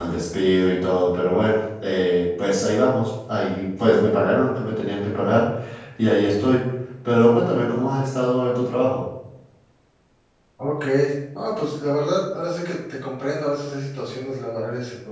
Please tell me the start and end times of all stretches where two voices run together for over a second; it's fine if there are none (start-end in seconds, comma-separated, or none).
none